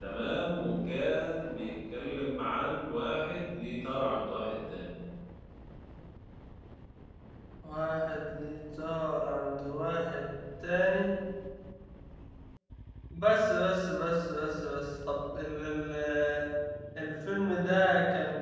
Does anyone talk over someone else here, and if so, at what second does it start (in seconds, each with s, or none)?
none